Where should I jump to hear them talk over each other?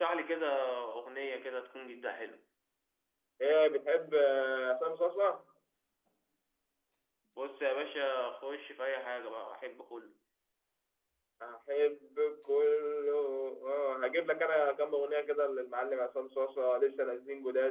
none

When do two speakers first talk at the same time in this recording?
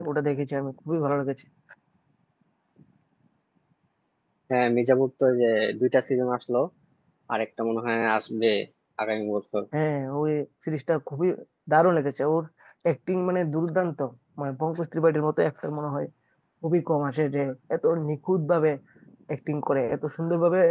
none

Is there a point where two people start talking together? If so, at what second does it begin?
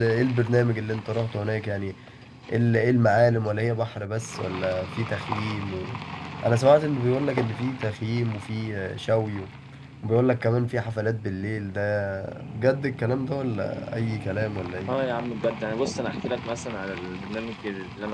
none

